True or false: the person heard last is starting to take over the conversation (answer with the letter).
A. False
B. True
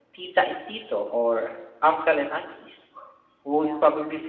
A